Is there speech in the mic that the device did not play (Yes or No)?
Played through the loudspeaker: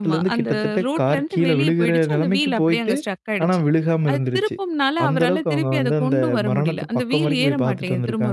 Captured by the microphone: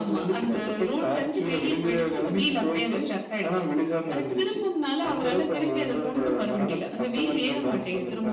No